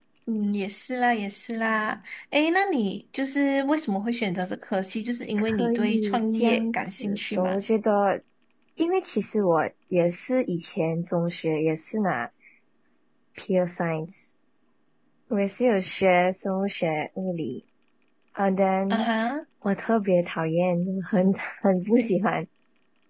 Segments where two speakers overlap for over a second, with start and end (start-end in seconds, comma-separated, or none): 5.4-7.6